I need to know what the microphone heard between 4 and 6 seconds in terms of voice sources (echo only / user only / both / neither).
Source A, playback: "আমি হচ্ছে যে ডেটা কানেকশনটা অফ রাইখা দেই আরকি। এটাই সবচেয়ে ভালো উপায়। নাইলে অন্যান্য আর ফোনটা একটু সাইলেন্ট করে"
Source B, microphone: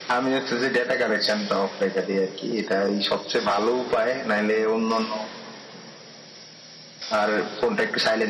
echo only